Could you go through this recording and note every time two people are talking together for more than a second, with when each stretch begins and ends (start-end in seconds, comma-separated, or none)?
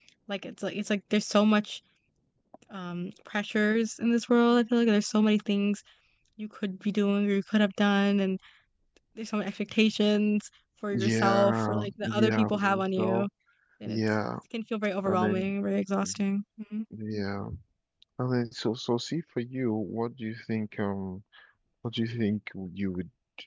10.9-13.3